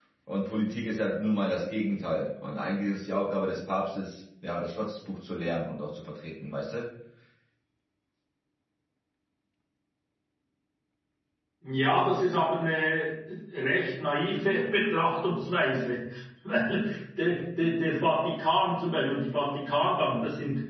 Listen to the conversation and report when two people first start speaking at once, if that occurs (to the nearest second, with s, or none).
none